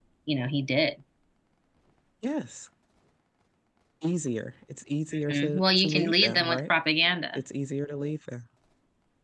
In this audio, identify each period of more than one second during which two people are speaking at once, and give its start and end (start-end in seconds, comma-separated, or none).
5.3-6.6